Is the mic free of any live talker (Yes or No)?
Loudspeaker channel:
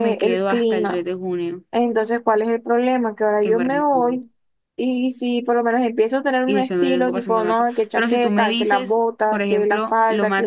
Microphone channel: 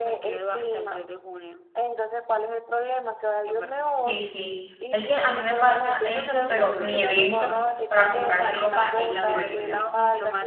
No